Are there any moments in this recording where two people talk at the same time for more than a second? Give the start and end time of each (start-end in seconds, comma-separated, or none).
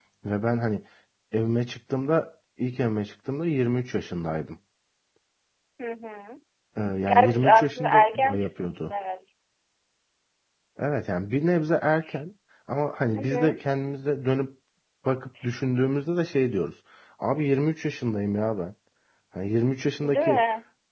7.0-8.9